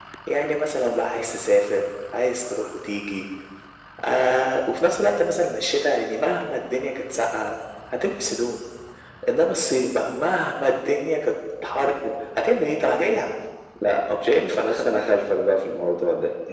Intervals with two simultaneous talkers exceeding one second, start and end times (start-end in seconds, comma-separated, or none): none